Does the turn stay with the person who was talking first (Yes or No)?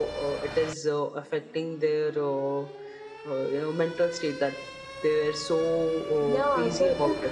No